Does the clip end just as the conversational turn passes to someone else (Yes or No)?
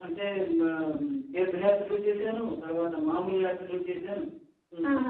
Yes